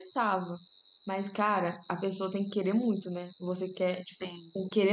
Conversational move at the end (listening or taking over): listening